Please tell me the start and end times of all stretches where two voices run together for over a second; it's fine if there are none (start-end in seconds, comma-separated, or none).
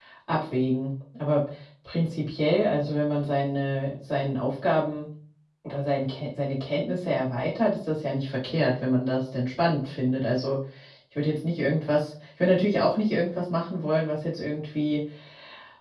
none